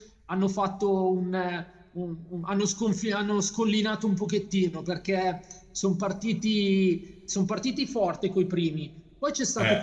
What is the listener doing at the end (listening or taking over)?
listening